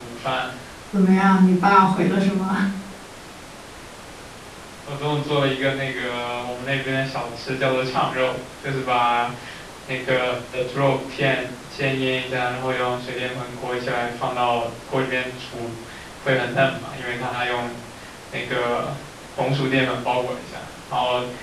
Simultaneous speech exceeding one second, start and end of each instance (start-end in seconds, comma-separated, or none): none